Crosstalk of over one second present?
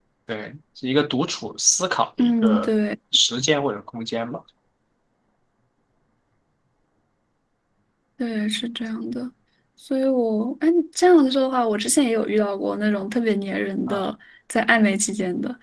No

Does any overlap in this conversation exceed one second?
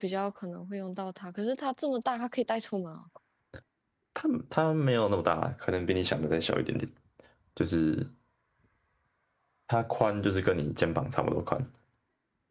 No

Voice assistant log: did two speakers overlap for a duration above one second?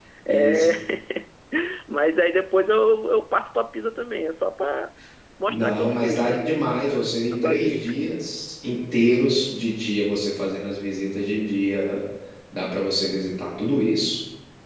Yes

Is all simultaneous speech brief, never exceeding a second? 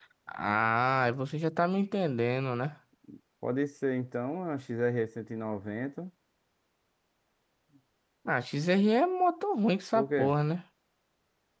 Yes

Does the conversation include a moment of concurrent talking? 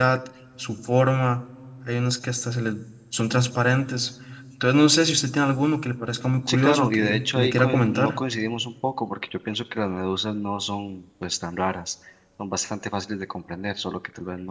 Yes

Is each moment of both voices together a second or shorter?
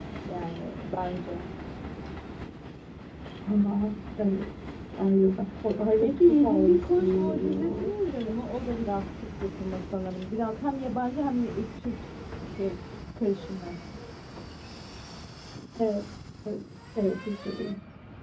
No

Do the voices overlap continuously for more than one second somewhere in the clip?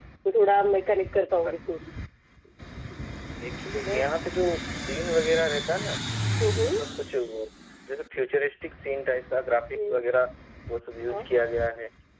No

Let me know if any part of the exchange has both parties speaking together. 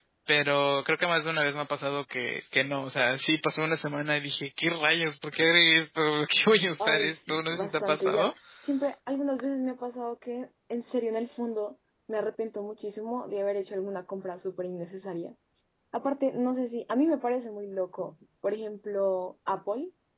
Yes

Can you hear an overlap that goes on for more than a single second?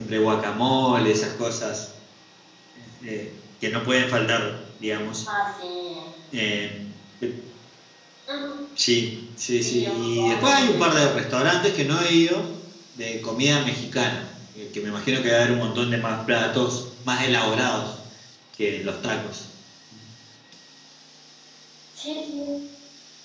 Yes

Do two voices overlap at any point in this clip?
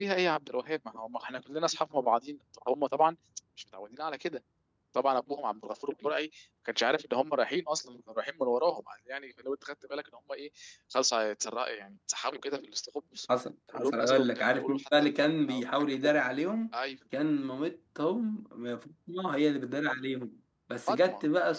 Yes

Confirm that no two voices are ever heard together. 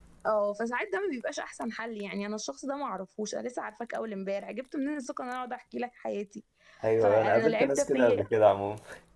No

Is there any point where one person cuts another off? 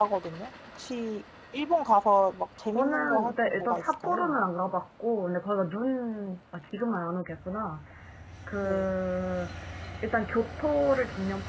Yes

